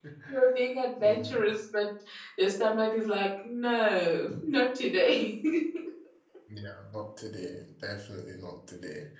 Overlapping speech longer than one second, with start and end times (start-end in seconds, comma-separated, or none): none